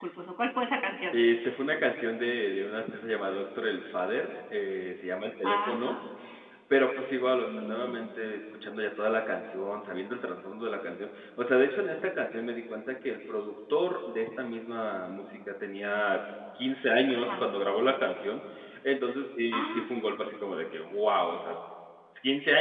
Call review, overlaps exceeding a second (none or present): none